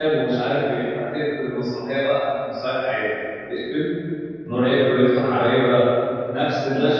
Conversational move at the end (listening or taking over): listening